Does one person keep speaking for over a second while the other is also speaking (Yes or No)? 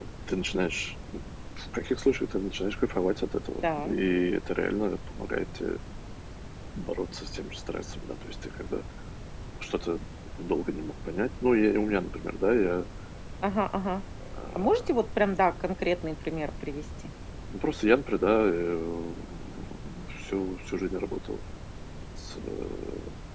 No